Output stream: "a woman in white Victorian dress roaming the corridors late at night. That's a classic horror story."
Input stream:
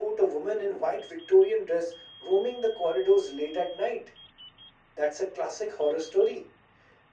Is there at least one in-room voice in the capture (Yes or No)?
No